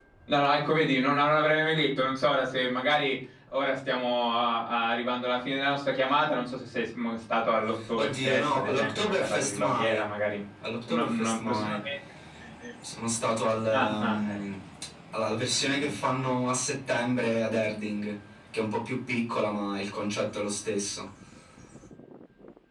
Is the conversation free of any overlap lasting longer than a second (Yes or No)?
No